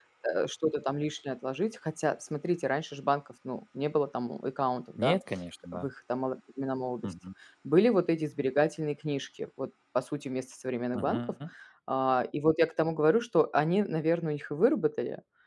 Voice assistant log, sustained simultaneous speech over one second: none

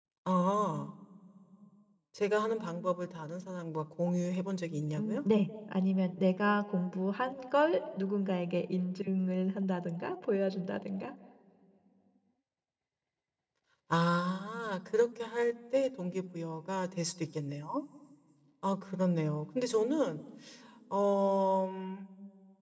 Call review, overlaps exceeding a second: none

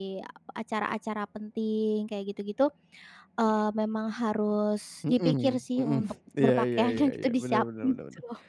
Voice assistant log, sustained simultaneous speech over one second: present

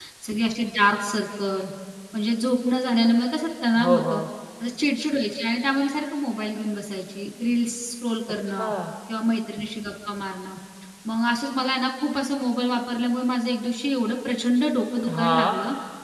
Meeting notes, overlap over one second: none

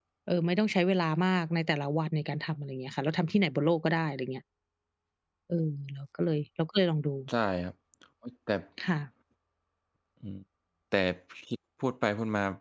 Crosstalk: none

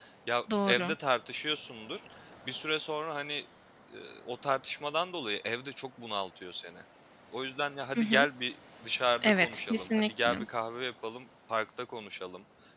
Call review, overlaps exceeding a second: present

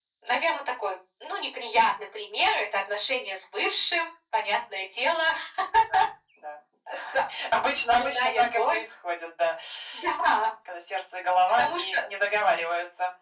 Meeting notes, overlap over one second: present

